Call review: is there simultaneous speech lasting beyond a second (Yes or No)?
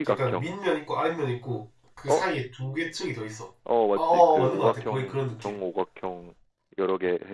Yes